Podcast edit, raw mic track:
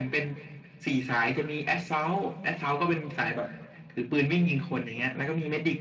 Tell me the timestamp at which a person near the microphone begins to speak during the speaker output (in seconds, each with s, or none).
none